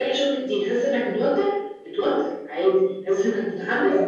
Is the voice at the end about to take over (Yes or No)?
No